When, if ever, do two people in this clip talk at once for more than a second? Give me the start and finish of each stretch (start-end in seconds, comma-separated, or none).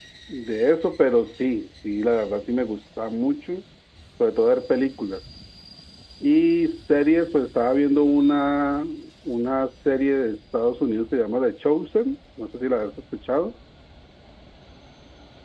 none